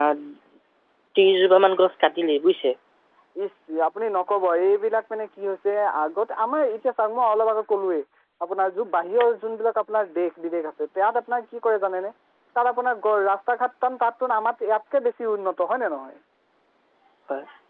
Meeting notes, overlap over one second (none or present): none